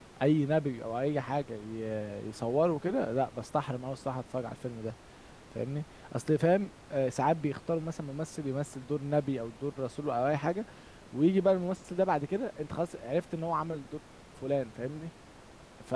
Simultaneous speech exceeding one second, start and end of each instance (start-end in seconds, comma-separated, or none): none